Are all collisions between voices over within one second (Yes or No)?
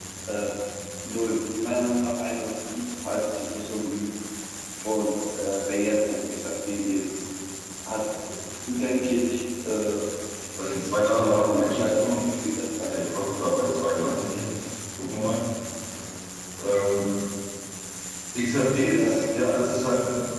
No